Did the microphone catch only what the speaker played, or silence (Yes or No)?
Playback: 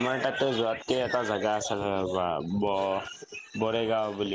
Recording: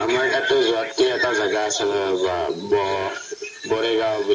Yes